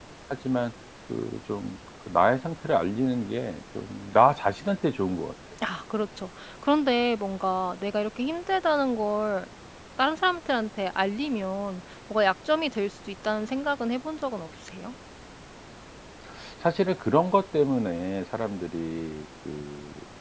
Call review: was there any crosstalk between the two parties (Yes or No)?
No